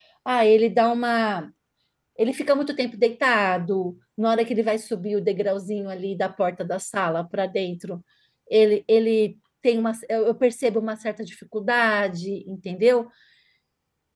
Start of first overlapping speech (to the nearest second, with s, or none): none